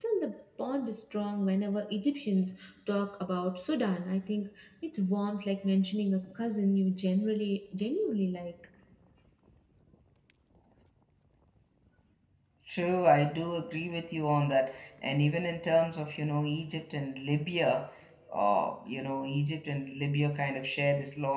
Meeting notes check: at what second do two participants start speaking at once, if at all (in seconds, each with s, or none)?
none